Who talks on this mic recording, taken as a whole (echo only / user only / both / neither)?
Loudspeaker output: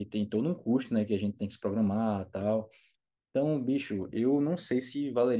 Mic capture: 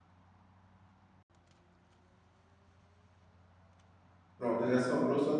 user only